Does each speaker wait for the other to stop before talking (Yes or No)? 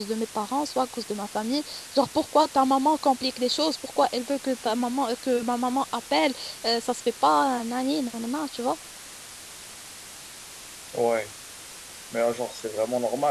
Yes